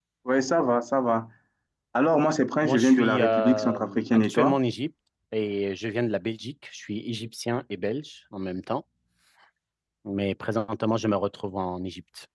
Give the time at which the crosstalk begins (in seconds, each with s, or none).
2.6 s